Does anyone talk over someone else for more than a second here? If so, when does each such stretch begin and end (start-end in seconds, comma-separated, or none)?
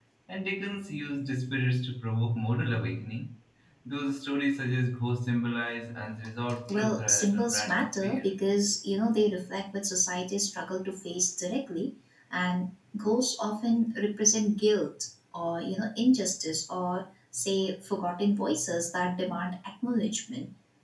6.7-8.2